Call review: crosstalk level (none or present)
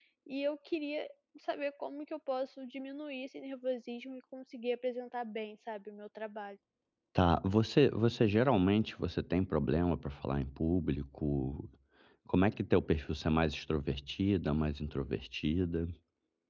none